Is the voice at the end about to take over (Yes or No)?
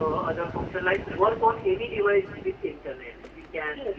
Yes